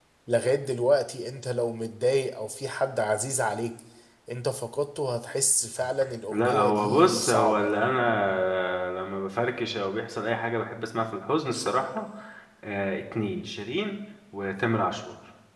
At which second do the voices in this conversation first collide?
6.3 s

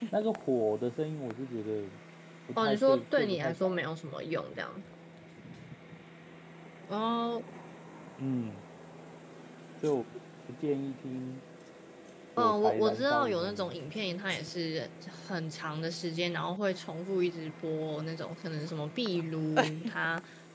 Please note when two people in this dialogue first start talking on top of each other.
2.6 s

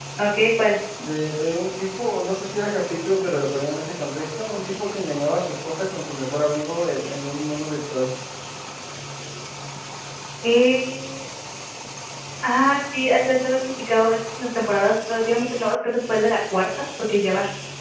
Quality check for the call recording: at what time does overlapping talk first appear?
none

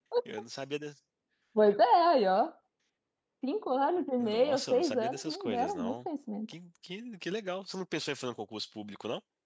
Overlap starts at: 4.2 s

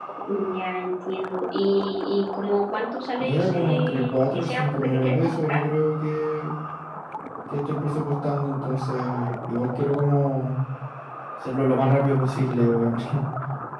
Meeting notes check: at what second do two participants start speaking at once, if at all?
3.2 s

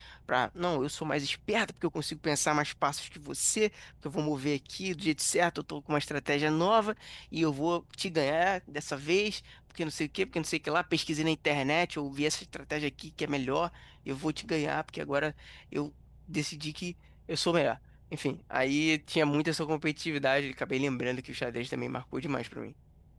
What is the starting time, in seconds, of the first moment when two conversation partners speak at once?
none

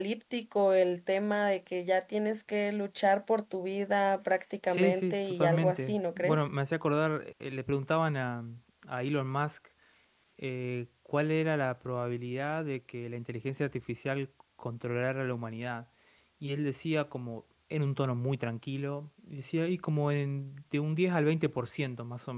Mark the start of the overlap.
4.7 s

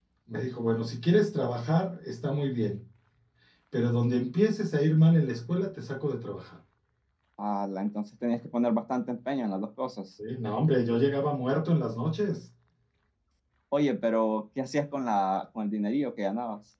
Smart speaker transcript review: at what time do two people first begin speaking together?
none

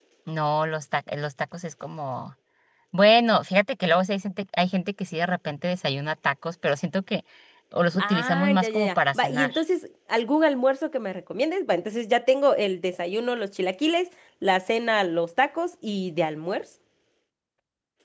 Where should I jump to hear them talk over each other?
8.0 s

